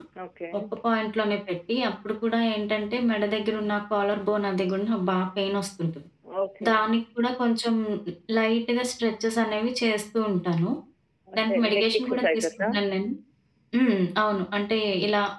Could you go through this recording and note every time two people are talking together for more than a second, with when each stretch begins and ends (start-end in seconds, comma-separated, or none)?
11.4-12.7